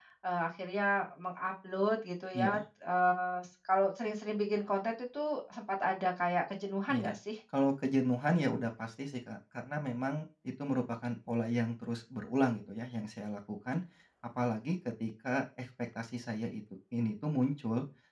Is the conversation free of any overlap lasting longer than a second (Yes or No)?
Yes